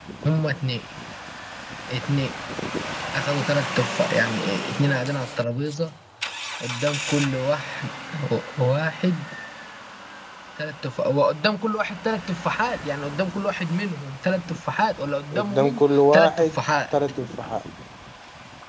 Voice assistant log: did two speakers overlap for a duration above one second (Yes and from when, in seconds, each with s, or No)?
Yes, from 15.3 s